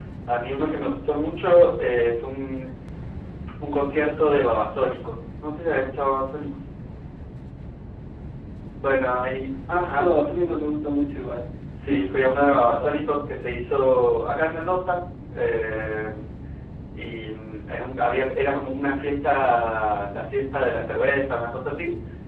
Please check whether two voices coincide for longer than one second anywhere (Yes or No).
Yes